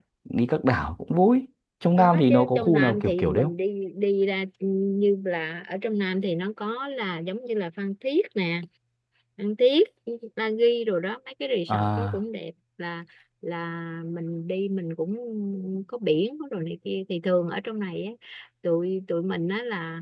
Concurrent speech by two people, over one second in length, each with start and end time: 2.0-3.5

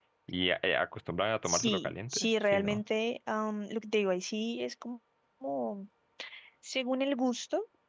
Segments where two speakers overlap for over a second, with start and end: 1.4-2.8

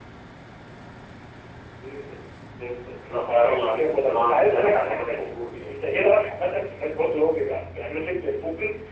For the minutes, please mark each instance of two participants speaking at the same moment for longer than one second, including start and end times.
3.2-5.3

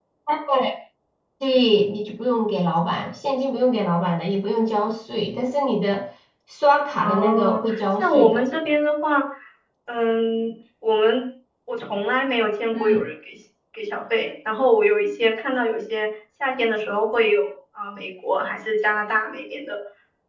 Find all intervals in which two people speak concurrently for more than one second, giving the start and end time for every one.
7.0-8.4

